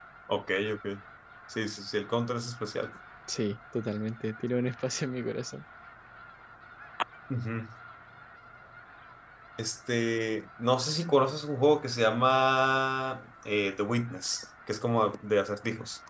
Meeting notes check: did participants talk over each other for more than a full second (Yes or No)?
No